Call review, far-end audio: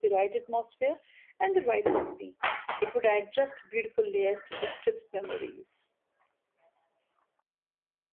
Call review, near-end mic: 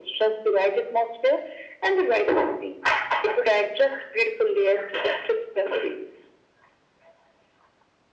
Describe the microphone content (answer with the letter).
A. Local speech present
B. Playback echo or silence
B